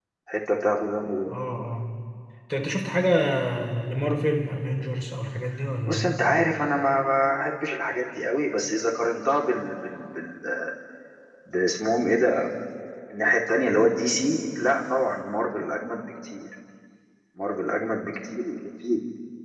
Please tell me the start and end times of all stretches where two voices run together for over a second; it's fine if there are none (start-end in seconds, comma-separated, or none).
none